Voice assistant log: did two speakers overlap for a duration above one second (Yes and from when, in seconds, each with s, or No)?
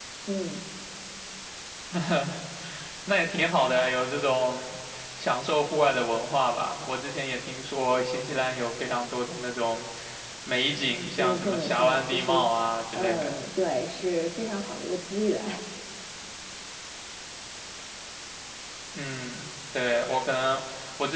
Yes, from 10.8 s